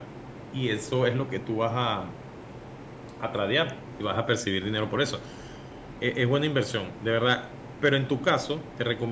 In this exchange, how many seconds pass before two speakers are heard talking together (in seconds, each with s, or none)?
none